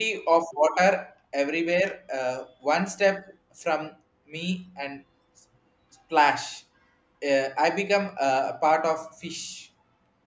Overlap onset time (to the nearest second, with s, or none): none